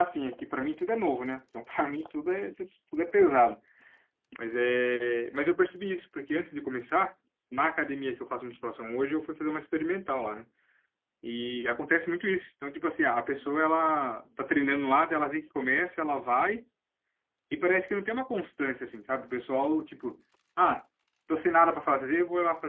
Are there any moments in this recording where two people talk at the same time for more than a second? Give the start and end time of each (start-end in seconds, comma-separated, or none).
none